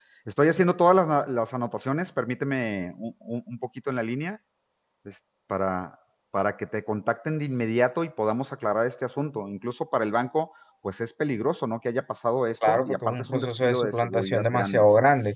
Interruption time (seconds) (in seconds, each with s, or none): 12.6 s